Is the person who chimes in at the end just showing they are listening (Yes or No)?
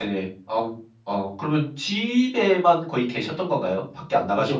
No